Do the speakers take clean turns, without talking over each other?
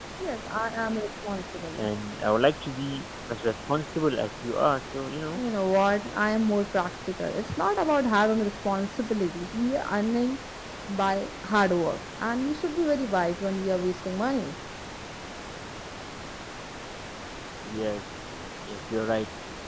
Yes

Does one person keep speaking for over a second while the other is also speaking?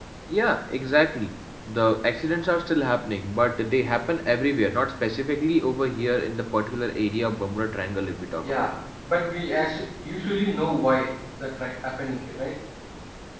No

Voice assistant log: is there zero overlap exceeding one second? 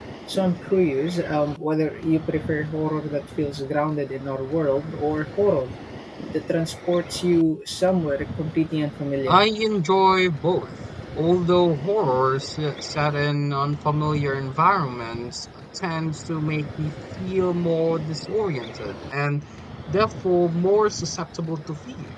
Yes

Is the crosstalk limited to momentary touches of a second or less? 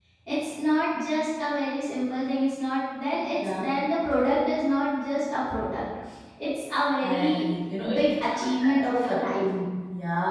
No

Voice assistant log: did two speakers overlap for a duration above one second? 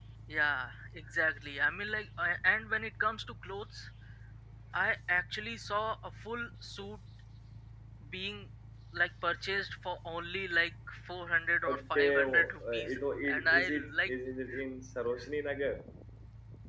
Yes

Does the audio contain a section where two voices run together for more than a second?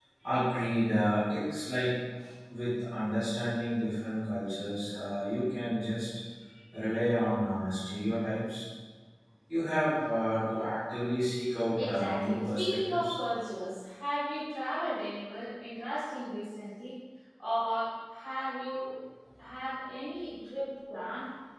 Yes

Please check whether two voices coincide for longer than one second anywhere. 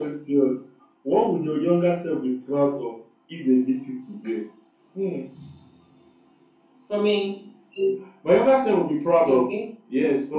No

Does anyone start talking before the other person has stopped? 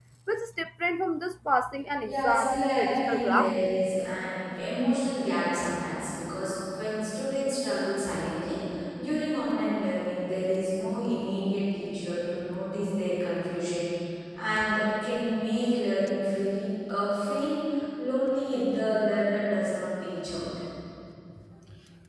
Yes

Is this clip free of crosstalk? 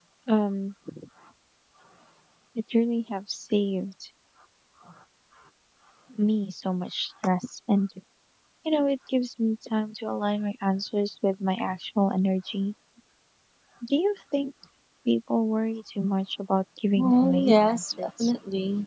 No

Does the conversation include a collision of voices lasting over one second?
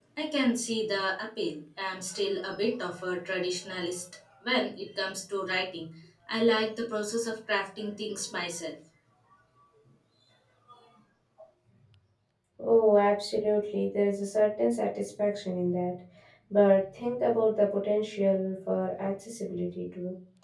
No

